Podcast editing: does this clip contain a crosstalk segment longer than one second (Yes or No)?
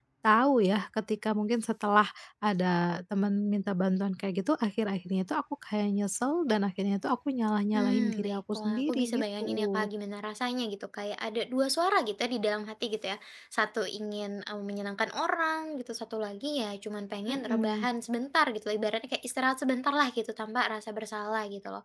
Yes